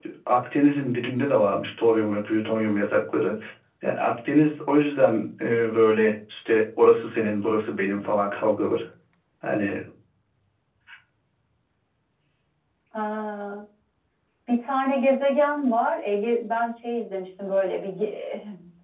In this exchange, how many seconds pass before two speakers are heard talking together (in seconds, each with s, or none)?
none